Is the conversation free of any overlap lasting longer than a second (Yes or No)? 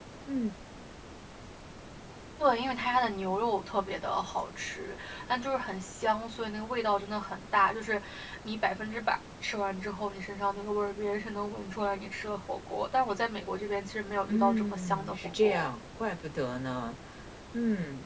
No